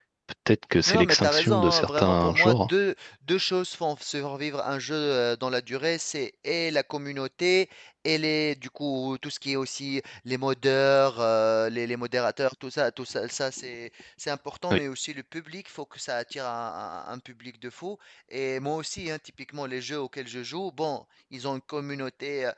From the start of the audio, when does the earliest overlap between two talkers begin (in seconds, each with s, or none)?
0.9 s